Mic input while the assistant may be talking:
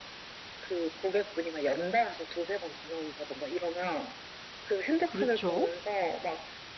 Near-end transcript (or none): 그렇죠.